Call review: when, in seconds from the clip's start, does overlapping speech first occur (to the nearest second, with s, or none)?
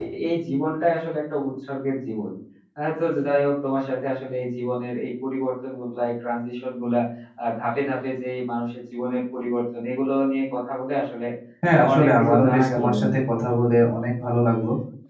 12 s